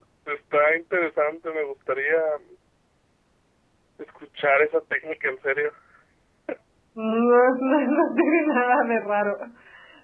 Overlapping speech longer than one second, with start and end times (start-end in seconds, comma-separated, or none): none